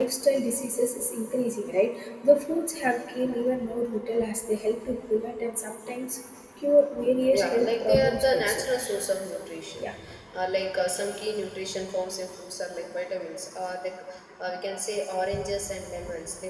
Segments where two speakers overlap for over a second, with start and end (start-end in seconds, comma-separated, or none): 7.3-8.7